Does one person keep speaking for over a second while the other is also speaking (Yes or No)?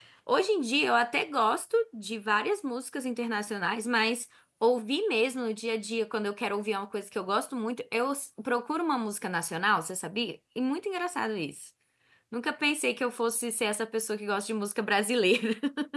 No